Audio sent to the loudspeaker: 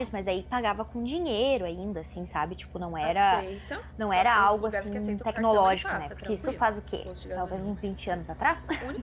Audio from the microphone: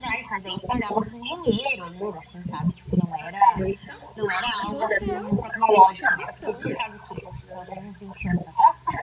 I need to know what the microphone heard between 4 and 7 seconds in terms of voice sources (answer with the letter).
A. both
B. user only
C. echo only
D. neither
A